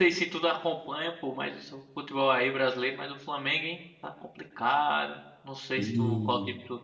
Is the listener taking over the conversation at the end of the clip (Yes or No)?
No